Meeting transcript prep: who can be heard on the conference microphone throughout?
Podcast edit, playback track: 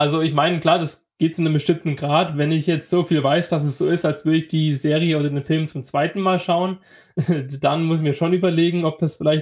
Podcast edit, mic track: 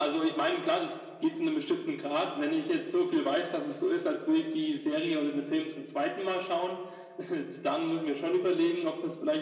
echo only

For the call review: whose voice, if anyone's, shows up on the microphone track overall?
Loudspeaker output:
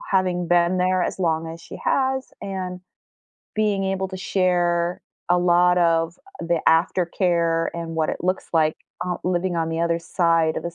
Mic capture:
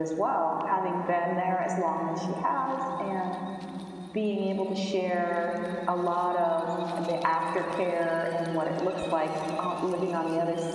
echo only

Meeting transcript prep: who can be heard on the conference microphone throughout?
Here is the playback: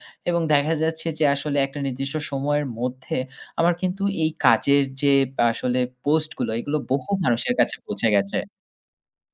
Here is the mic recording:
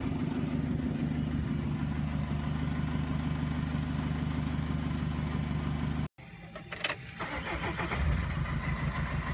neither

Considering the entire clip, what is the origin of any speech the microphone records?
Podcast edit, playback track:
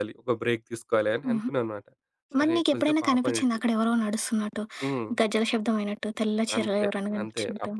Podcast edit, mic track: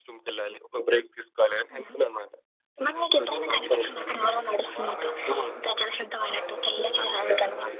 both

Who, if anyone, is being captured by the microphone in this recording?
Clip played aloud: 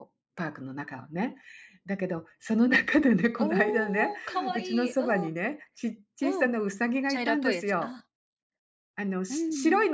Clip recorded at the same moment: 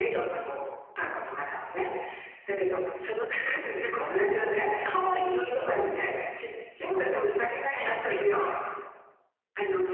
echo only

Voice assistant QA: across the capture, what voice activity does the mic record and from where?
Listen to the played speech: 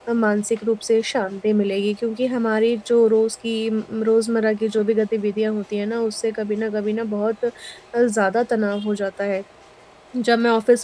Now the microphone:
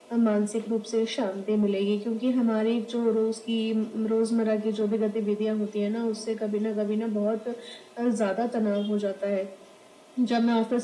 echo only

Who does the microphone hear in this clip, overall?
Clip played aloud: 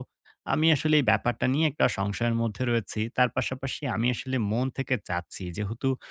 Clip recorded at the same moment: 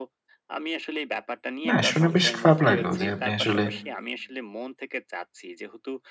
both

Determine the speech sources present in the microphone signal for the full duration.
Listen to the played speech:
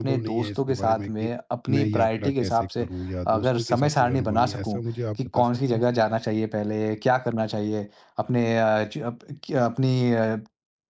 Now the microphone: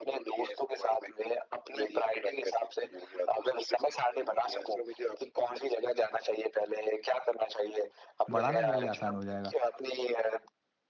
both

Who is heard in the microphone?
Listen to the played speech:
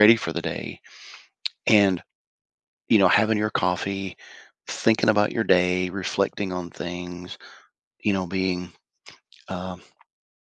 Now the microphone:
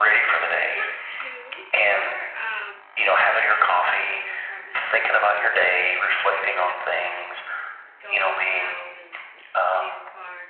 both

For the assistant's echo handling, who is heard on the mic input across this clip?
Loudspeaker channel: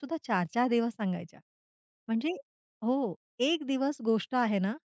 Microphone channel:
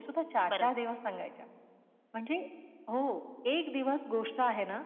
both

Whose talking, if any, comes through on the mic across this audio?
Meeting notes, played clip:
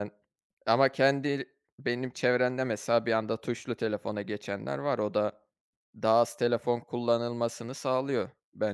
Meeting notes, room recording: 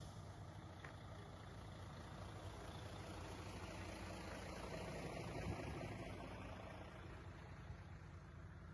neither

